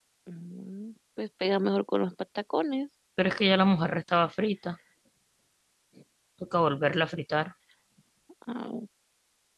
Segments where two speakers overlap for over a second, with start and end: none

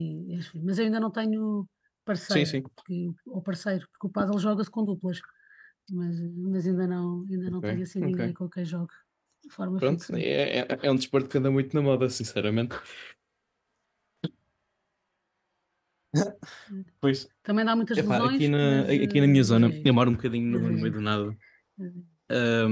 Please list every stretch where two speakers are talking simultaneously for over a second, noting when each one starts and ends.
18.0-19.9

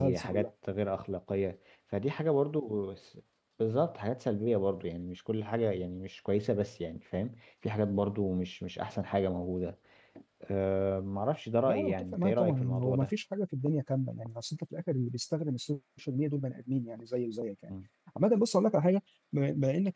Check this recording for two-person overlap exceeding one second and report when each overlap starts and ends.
11.7-13.1

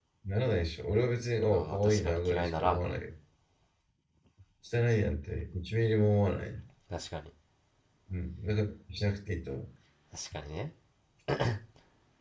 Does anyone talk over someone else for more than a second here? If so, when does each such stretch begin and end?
1.5-3.0

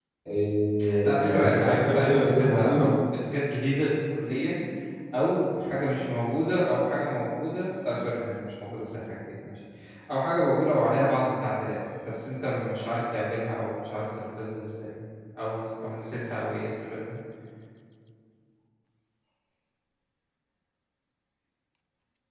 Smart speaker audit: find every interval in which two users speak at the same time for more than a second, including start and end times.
1.0-2.9

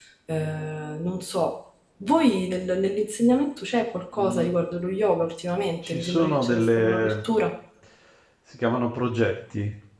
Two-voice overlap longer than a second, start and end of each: 5.8-7.1

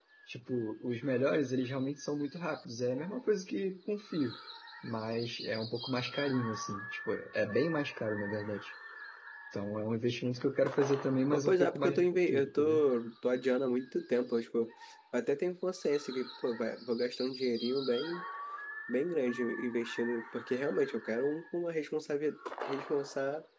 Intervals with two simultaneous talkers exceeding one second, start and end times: 11.3-12.8

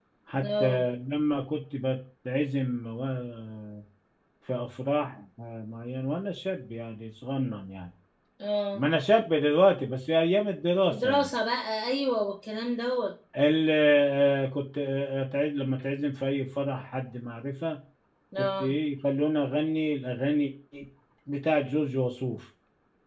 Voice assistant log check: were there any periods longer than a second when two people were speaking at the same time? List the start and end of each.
none

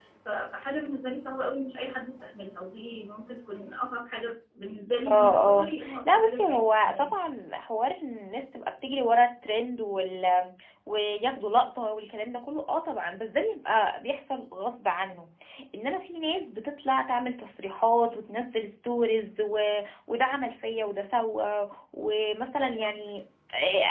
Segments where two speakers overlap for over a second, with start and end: 5.1-7.3

